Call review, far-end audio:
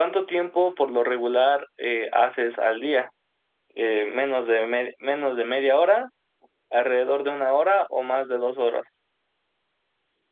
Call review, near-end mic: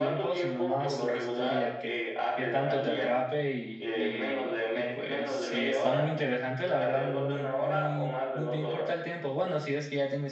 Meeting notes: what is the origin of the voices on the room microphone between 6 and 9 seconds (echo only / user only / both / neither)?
both